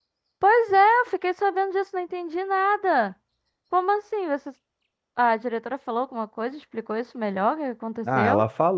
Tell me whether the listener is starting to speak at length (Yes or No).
Yes